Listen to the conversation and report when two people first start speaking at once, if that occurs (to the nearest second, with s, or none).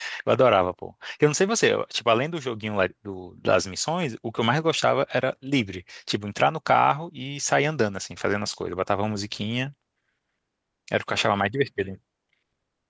none